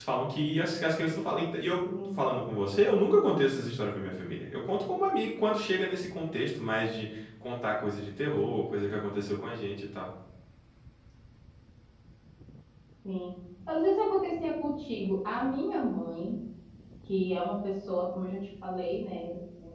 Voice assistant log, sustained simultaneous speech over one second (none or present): none